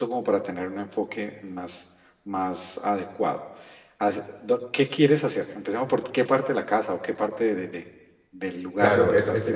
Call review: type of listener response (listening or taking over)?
taking over